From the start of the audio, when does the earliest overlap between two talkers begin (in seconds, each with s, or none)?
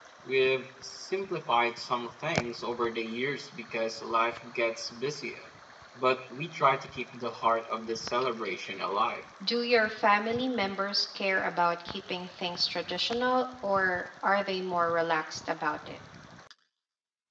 none